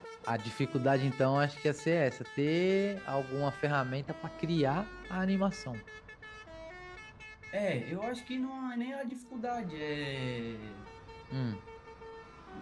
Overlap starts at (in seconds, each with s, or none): none